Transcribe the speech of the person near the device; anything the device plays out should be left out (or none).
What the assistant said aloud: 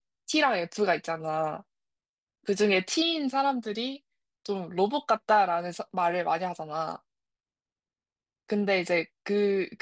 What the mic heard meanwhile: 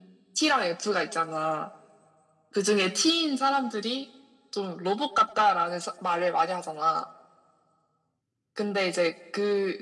none